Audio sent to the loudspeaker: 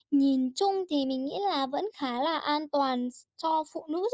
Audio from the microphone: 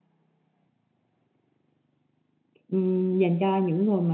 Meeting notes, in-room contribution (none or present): present